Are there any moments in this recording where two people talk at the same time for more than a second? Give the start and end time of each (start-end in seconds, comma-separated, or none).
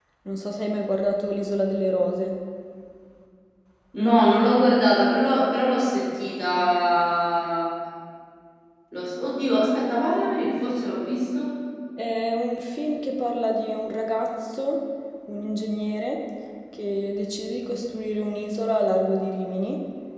none